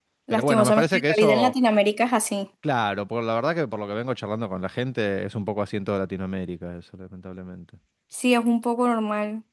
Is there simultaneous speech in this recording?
Yes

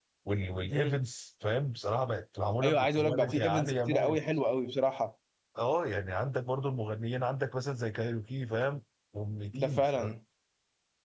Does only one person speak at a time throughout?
No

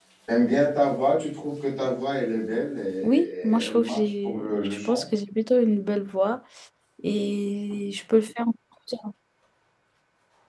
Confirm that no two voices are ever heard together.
No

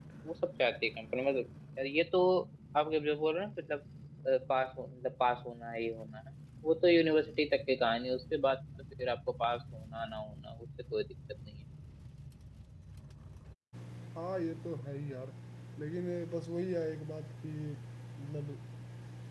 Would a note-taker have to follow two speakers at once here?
No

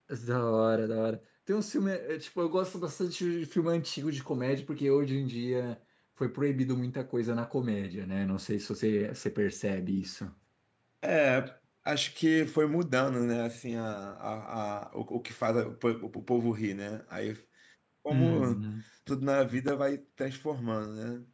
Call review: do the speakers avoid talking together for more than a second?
Yes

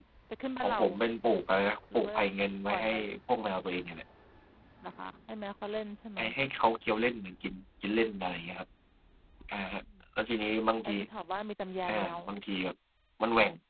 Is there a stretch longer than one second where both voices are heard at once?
No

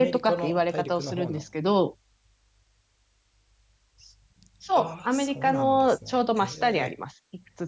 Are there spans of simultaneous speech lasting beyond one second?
Yes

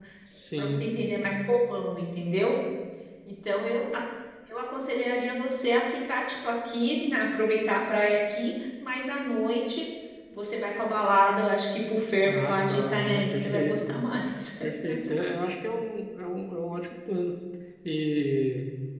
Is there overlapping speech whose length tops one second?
Yes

